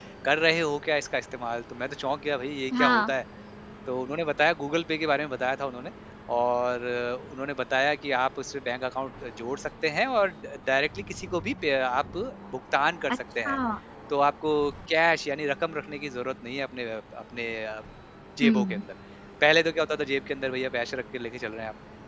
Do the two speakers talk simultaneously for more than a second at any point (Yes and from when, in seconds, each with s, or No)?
No